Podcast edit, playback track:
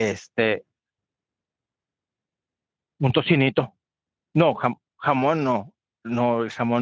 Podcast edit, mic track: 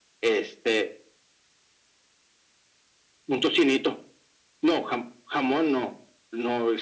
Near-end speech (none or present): none